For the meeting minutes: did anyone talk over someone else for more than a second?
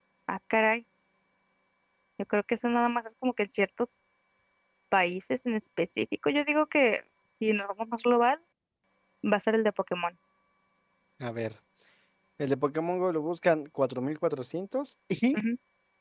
No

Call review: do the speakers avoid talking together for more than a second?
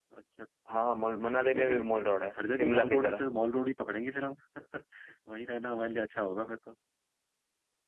No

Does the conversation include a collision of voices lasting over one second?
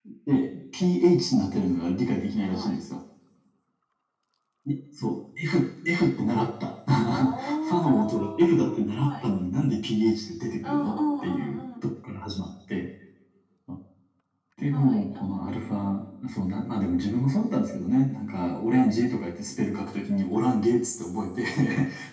Yes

